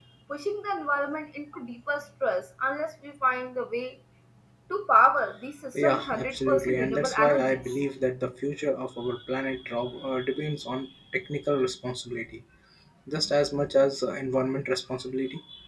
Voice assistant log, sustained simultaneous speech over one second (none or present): present